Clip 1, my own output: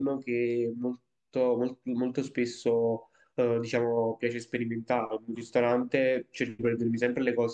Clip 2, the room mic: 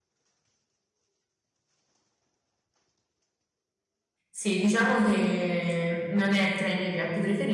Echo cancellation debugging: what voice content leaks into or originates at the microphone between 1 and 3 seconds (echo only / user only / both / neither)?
neither